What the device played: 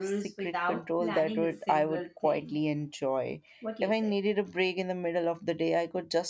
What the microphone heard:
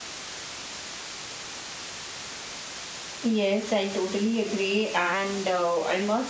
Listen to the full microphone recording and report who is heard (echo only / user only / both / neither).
user only